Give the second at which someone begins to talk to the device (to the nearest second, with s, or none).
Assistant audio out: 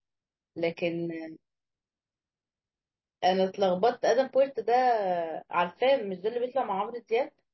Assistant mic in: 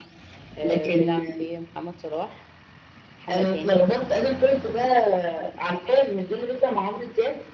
1 s